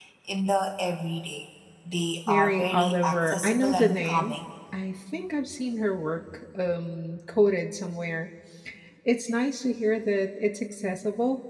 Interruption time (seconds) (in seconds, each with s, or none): 2.3 s